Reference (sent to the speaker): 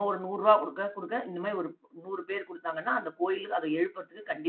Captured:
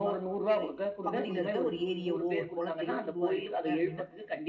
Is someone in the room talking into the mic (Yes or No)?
Yes